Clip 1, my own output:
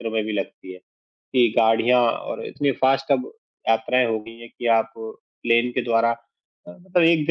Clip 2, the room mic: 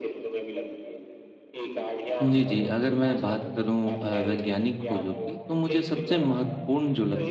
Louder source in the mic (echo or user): user